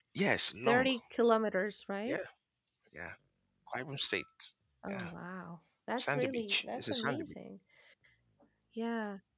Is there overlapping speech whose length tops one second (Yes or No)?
Yes